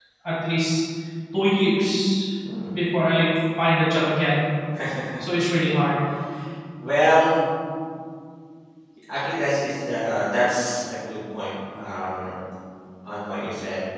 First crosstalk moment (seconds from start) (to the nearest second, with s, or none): none